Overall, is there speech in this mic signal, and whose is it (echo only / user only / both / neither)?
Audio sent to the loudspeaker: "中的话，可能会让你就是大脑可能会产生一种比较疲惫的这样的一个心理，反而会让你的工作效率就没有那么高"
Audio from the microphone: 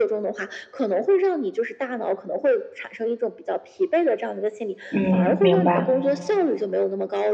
both